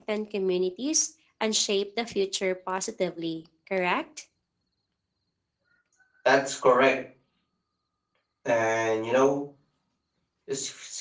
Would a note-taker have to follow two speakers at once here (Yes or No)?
No